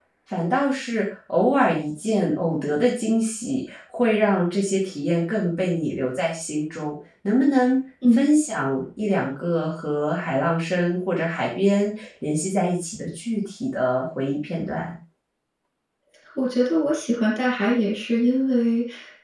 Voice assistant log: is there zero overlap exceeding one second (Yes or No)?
Yes